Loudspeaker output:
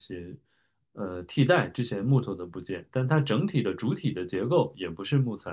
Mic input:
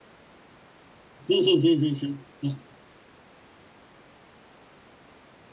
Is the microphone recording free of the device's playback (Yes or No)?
Yes